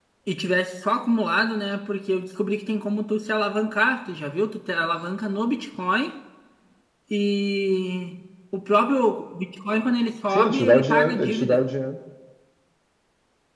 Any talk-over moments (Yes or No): Yes